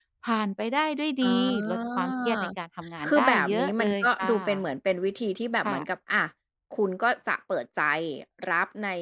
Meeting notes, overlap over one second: present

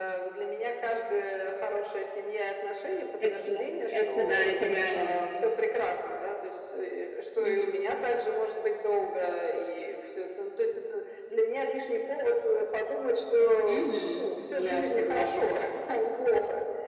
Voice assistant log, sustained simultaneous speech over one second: present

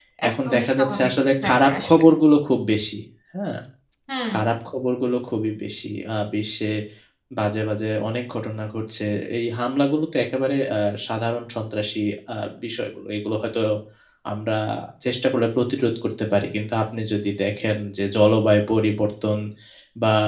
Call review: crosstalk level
present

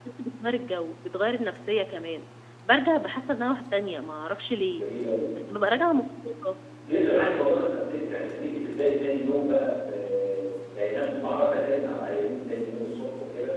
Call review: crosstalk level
none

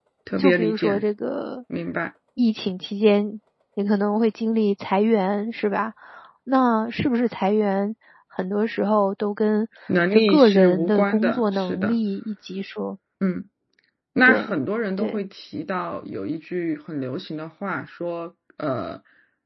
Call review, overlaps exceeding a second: present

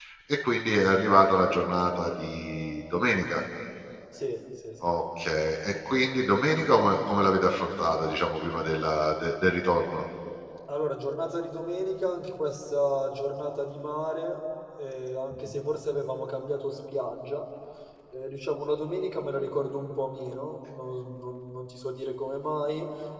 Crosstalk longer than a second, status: none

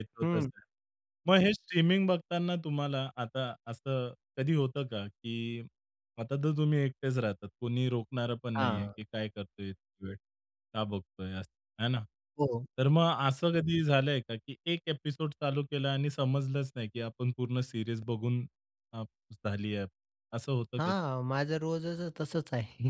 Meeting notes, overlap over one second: none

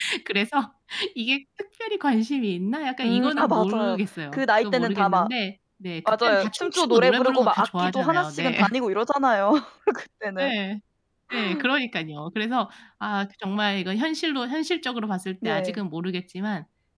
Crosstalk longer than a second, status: present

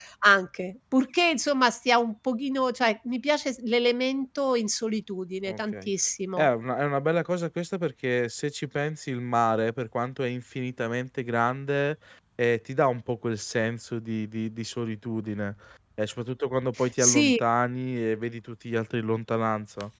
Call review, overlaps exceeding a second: none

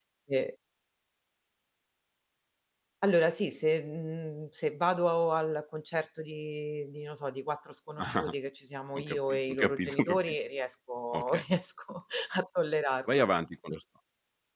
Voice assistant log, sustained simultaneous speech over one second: present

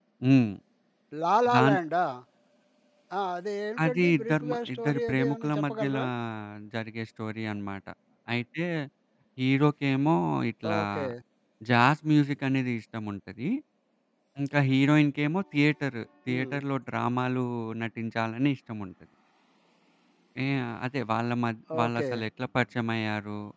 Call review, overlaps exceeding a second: present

